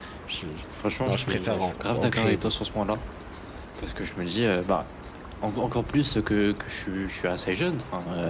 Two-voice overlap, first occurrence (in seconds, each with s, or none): 1.1 s